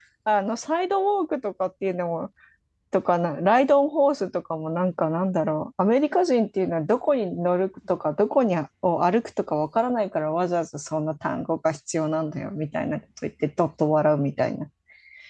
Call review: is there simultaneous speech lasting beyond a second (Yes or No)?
No